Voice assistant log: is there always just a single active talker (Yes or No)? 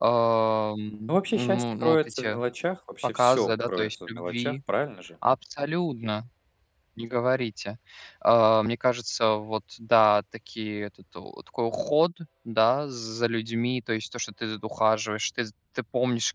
No